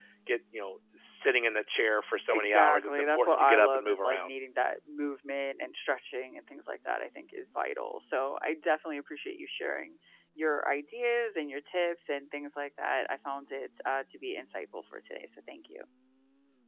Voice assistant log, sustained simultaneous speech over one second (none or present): present